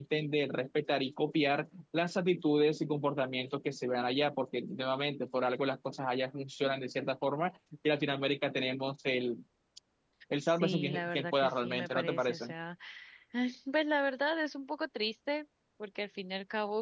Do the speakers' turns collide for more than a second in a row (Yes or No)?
Yes